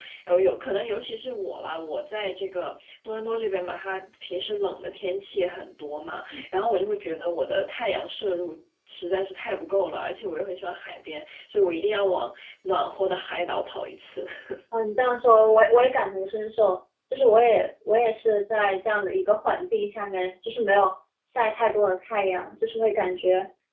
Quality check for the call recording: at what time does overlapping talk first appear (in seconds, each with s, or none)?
none